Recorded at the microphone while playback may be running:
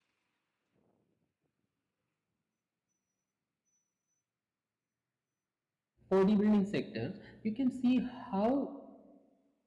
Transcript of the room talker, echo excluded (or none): bodybuilding sector you can see how